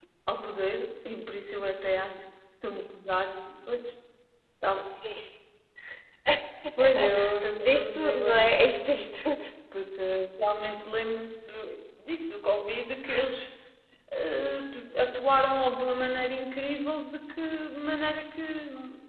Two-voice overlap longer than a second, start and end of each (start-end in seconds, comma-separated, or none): 7.6-9.4